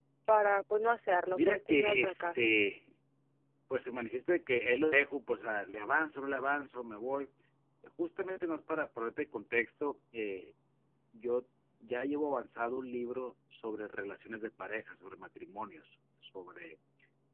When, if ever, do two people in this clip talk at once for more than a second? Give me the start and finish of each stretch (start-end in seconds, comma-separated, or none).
1.3-2.5